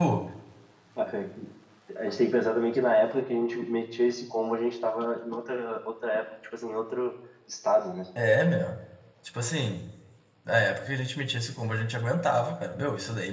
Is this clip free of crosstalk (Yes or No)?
Yes